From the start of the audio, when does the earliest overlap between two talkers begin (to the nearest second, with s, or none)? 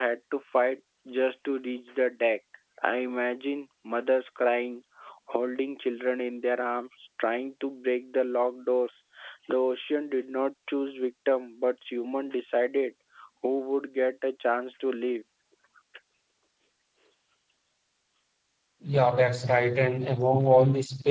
none